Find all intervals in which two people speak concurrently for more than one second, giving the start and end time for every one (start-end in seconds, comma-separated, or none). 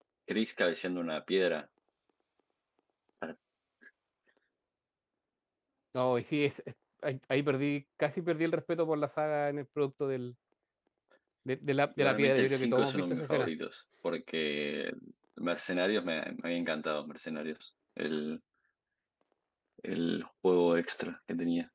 12.0-13.5